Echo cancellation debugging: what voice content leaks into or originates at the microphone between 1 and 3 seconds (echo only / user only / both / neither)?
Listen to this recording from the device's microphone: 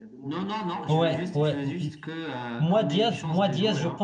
both